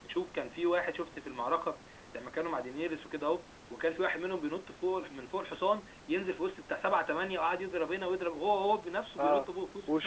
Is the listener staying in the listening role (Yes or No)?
No